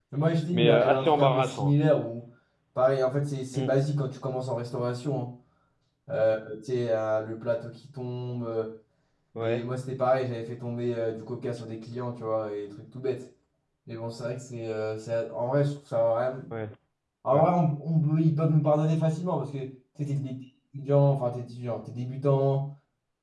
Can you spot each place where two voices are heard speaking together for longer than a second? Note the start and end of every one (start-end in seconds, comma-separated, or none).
0.5-1.8